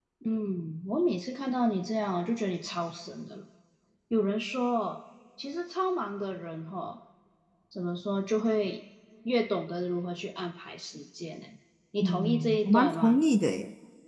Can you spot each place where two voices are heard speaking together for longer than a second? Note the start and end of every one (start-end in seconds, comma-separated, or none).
12.0-13.2